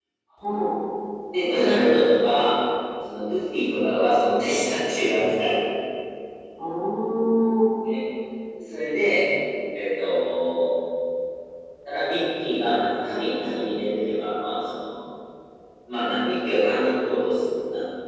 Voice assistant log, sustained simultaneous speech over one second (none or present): none